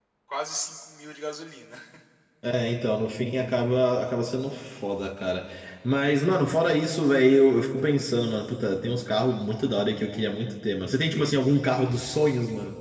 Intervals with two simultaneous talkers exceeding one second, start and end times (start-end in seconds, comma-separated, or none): none